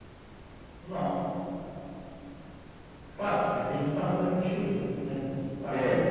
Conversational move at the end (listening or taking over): taking over